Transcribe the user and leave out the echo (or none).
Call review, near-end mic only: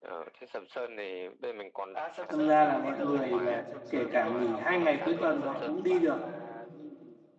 đâm ra là mọi người là kể cả nghỉ hai ngày cuối tuần họ cũng đi được